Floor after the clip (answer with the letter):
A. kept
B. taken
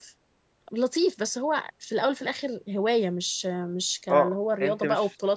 B